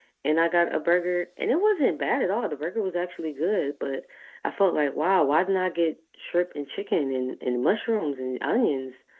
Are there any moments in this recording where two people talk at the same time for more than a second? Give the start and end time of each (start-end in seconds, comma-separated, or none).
none